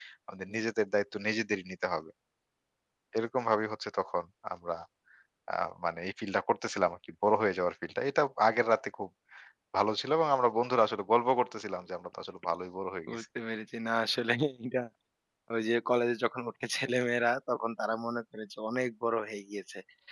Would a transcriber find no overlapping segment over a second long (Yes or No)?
Yes